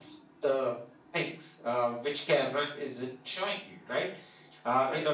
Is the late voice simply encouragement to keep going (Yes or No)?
Yes